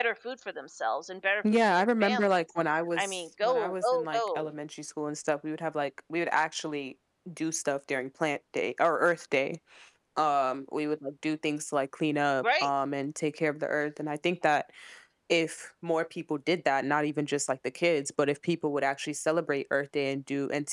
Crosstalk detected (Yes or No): Yes